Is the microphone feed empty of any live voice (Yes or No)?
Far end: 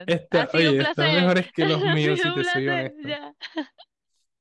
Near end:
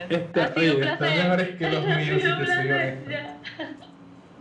Yes